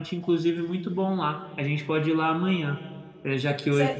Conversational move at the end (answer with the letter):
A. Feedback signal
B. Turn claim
A